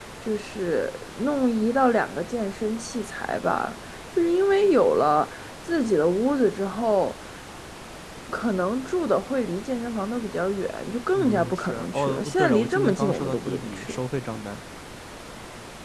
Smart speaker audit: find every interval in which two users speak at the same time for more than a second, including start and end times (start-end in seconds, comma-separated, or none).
11.1-14.0